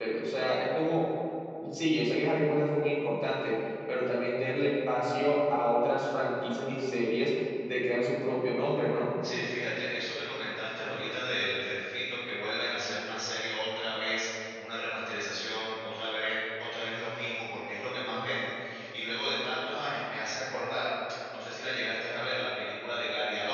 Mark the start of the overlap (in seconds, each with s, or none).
none